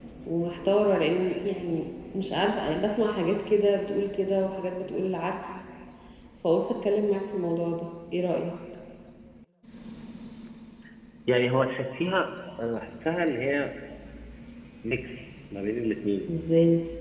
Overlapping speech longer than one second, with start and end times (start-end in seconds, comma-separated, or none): none